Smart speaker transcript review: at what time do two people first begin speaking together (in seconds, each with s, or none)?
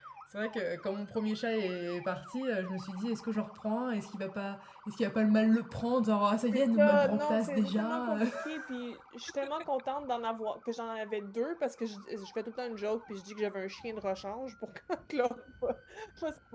6.5 s